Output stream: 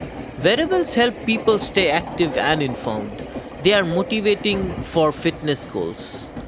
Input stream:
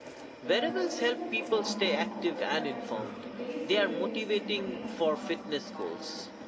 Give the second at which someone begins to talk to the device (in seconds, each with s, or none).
0.4 s